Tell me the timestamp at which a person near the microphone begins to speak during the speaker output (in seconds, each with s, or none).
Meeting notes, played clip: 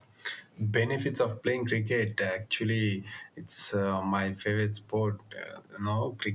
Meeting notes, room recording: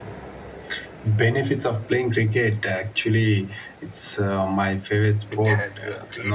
5.3 s